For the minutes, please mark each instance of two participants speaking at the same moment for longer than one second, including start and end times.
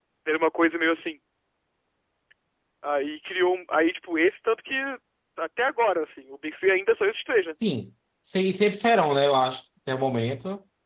none

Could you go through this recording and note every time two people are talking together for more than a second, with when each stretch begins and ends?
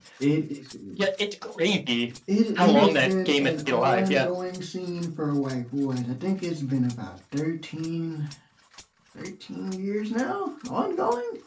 2.5-4.2

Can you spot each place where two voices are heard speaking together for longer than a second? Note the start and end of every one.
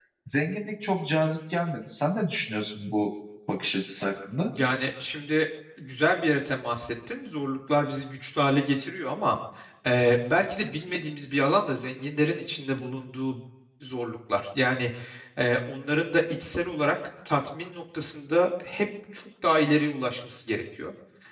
none

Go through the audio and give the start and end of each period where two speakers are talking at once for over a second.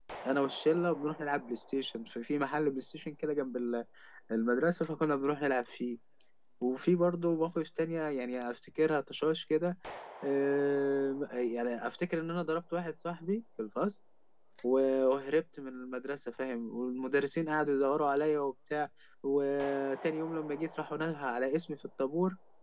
none

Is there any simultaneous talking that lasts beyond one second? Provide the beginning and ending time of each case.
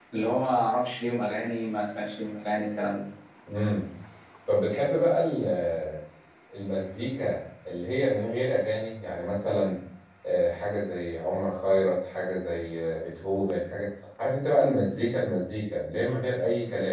none

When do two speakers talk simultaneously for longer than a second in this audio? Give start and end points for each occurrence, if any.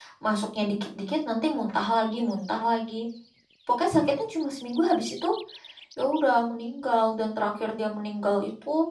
none

